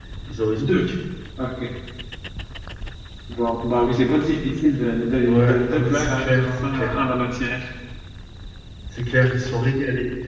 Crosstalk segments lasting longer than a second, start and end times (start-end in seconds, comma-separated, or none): 5.2-6.9